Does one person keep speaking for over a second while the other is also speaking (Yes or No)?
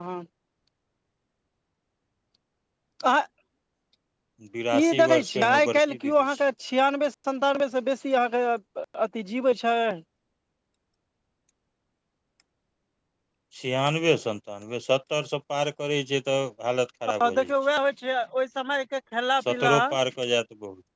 Yes